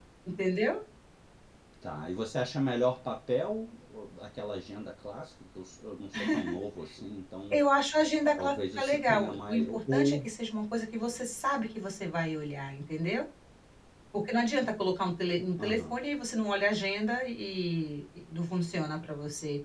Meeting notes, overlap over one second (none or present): present